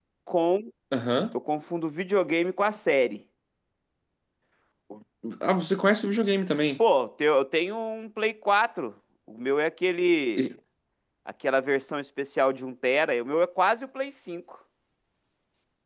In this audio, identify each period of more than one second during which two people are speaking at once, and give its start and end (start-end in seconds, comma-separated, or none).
none